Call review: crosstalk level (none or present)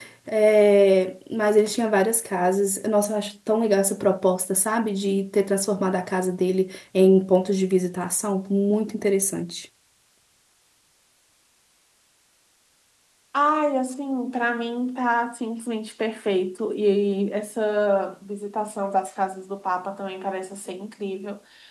none